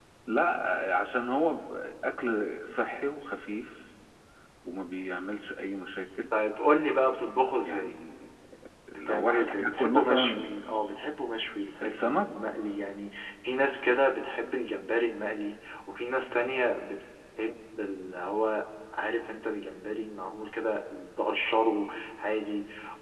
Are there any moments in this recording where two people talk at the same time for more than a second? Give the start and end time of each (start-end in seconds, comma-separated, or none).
8.9-10.5